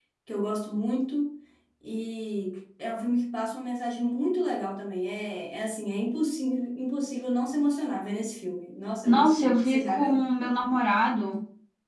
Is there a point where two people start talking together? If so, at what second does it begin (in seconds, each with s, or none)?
9.1 s